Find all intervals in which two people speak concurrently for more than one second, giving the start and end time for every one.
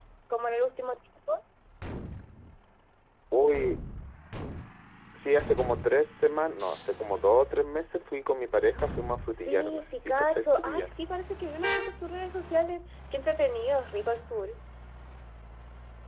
9.4-10.9

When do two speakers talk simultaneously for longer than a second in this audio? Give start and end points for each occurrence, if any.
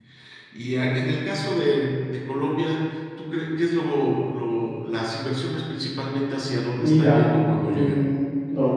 6.8-8.0

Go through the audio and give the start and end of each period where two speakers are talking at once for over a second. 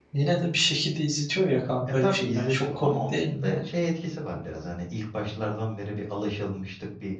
2.0-3.6

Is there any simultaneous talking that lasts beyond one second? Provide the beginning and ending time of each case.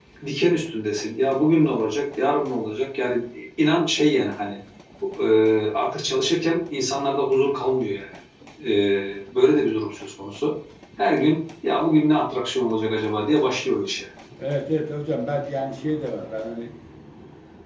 none

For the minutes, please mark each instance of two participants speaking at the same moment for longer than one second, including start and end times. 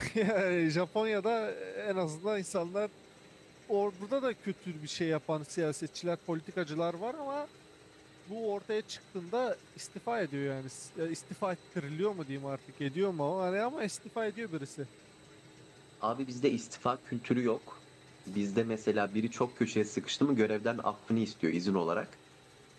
none

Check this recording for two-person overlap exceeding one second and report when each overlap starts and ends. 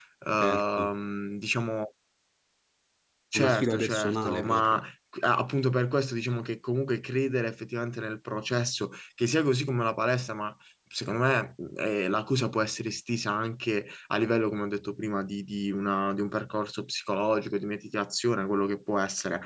3.3-4.8

